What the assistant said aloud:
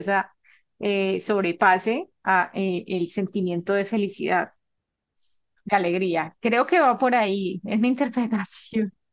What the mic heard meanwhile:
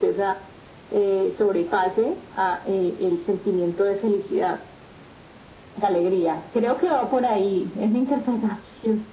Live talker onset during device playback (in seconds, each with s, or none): none